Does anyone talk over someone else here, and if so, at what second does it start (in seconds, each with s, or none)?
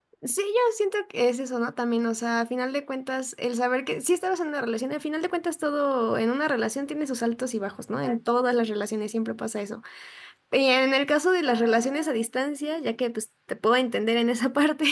none